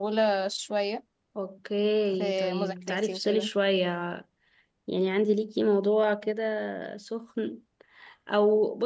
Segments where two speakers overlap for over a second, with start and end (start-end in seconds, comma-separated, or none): 2.2-3.5